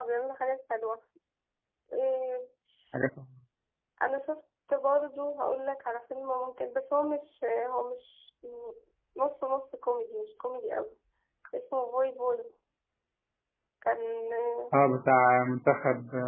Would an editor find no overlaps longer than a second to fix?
Yes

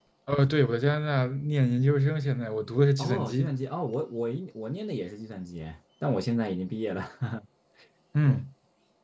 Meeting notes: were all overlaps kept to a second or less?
Yes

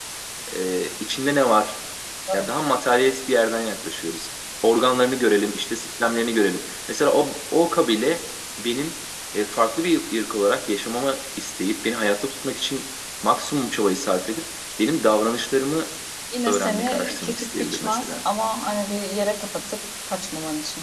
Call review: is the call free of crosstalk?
No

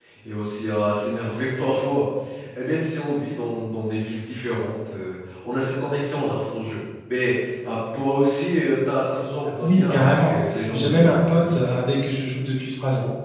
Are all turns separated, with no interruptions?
No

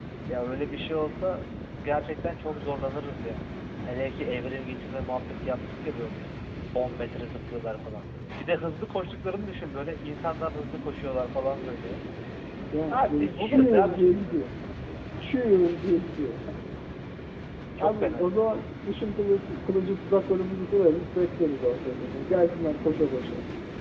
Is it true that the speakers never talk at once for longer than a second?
No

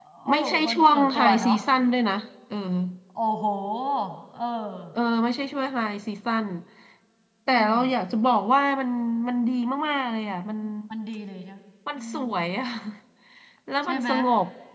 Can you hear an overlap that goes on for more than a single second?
Yes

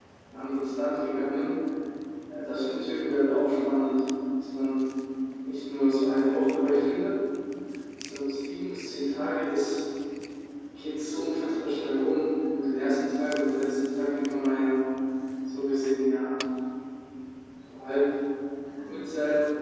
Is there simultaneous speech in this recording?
No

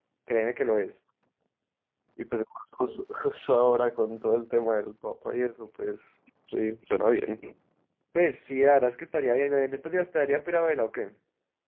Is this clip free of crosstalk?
Yes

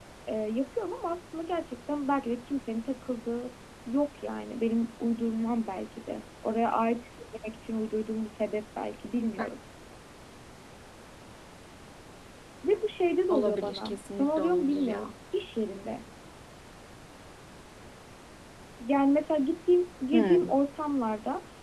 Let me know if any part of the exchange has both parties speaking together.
Yes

